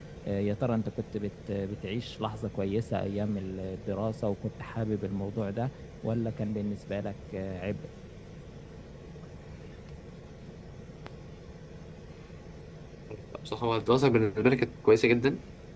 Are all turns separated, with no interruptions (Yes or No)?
Yes